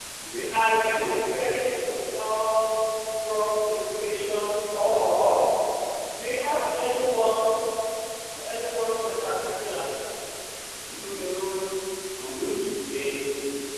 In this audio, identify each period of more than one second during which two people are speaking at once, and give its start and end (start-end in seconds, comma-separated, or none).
none